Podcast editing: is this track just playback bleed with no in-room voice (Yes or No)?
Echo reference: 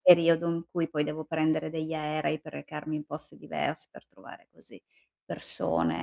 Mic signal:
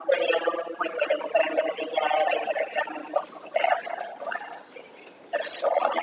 Yes